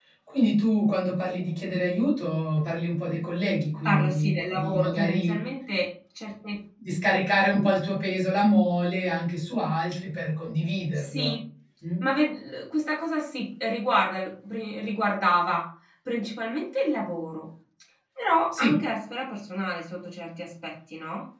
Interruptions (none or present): present